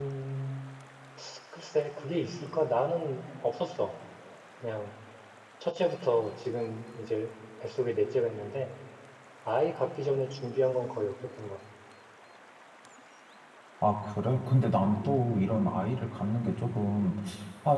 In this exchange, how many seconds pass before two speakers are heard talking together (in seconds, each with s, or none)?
none